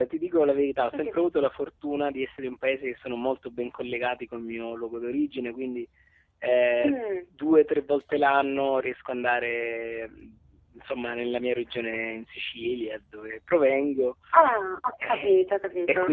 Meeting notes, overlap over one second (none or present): none